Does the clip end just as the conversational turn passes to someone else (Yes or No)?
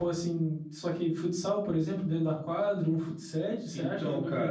Yes